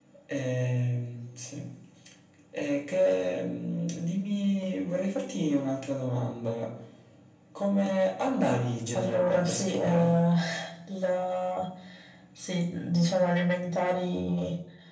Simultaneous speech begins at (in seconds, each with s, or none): 8.9 s